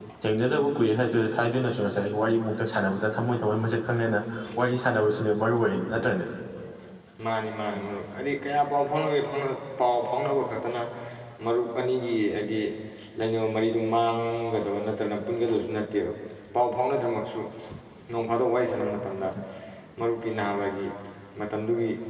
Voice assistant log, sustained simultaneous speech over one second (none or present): none